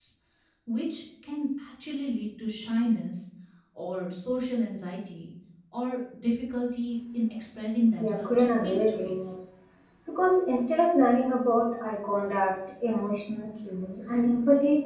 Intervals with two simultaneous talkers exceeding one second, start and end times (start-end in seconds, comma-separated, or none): 8.0-9.3